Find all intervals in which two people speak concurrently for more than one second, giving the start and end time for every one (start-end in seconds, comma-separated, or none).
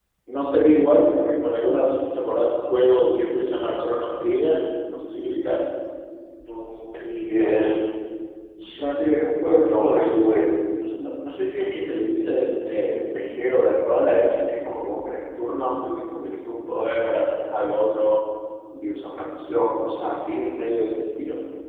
none